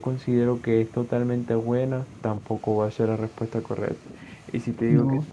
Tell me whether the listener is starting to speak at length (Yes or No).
No